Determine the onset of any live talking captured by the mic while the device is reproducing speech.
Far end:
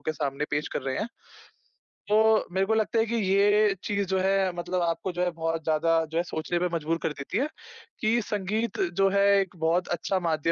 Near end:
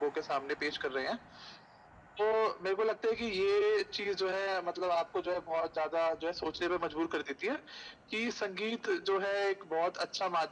none

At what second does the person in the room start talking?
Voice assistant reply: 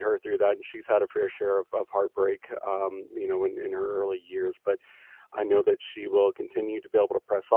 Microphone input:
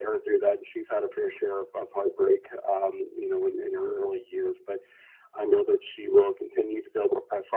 none

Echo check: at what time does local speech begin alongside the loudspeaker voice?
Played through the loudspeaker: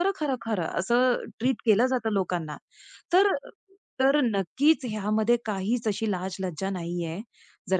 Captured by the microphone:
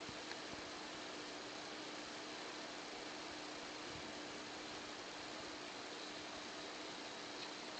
none

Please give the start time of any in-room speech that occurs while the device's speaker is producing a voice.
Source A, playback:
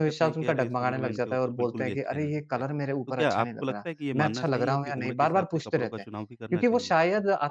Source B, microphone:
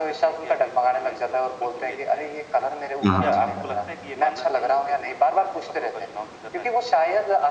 3.0 s

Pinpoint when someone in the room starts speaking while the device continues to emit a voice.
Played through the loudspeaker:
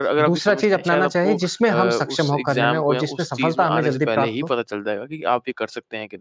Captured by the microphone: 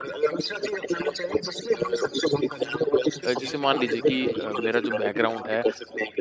3.2 s

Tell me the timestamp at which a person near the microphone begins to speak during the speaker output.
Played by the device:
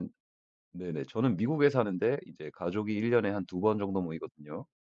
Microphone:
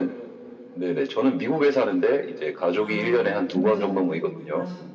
2.7 s

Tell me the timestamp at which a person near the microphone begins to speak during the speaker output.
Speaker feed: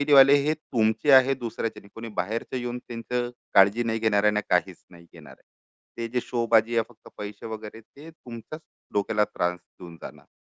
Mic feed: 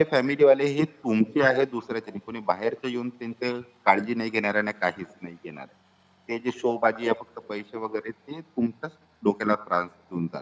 none

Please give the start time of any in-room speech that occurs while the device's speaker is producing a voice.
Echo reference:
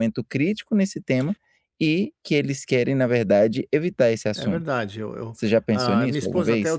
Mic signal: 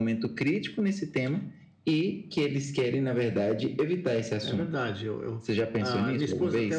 none

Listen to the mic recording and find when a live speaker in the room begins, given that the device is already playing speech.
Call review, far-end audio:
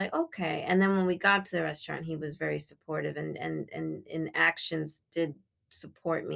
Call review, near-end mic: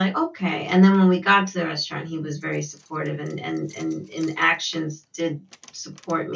none

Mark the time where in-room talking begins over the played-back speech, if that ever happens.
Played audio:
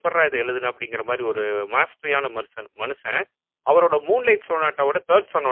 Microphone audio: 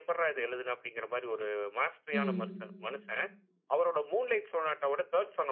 2.1 s

